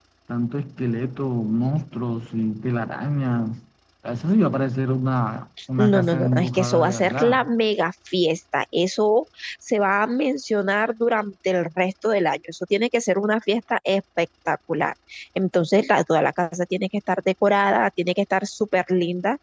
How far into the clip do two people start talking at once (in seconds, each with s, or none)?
5.6 s